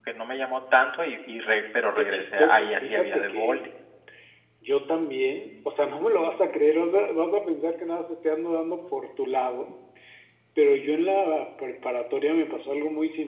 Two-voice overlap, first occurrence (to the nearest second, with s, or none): 2 s